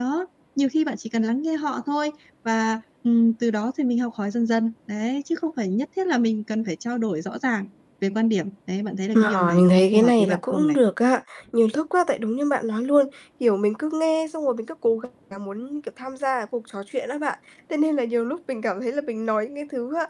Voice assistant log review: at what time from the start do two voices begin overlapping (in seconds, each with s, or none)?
9.1 s